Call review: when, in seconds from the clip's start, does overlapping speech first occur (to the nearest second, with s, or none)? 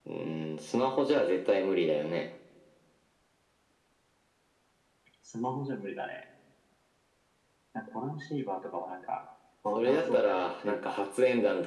10 s